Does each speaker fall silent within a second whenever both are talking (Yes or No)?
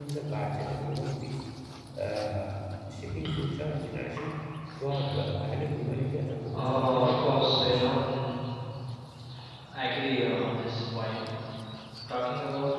No